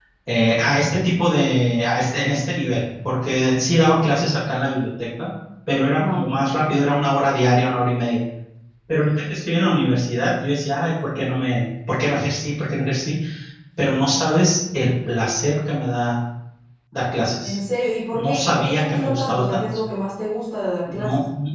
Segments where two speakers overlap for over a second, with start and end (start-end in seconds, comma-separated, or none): 18.1-19.6